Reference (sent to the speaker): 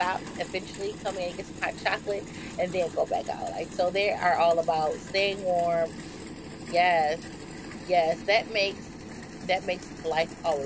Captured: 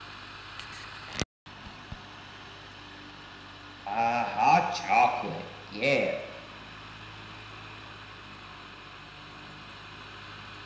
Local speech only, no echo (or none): Ah, hot chocolate, yeah.